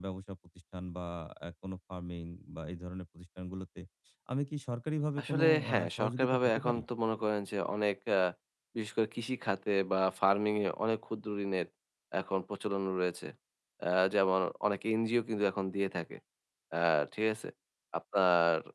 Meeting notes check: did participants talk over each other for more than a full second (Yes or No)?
Yes